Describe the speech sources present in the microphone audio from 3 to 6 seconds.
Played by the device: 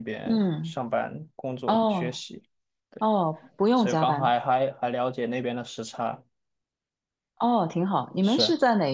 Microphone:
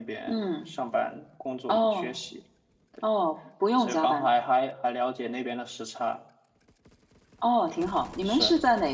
echo only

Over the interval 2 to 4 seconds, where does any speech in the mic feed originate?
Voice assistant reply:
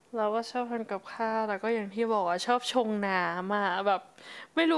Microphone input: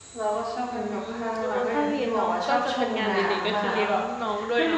both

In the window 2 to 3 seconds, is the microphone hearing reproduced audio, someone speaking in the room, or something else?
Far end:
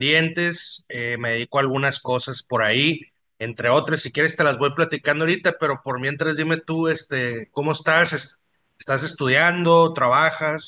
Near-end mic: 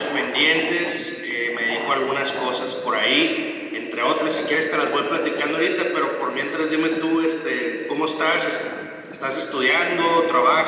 echo only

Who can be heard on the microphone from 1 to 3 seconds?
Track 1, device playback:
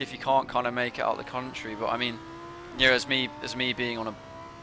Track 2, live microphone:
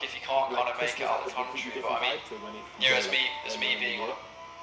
both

